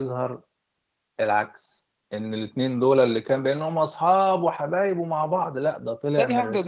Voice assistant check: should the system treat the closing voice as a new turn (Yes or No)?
Yes